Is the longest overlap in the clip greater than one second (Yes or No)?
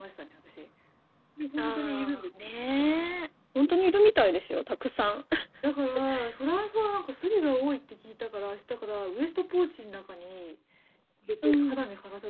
Yes